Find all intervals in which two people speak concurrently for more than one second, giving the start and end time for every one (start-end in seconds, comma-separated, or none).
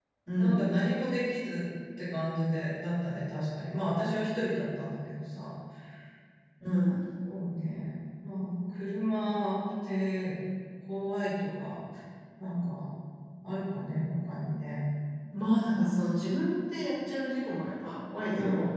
none